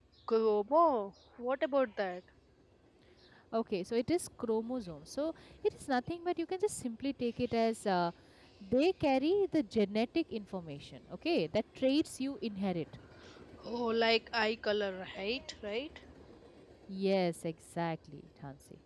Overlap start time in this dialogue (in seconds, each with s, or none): none